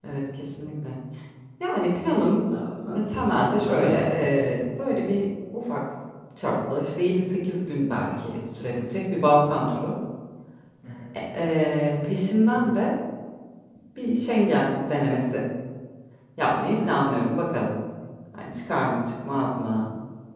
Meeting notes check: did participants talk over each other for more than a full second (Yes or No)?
No